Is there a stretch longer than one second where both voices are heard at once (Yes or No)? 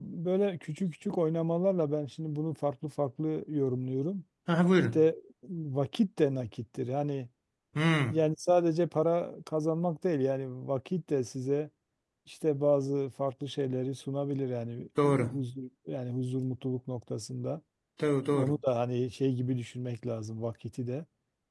No